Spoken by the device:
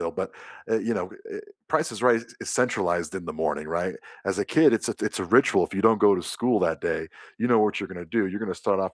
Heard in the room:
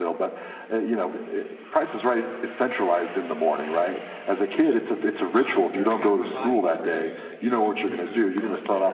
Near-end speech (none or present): present